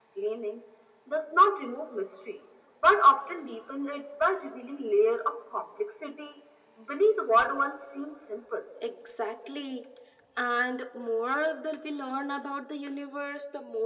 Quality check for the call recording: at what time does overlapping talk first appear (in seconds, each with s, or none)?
none